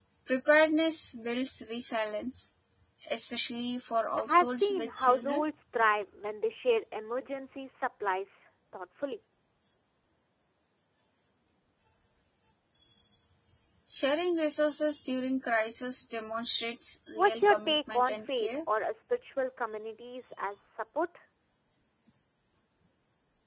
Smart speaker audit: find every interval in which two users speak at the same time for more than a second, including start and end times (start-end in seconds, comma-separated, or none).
4.2-5.4, 17.2-18.5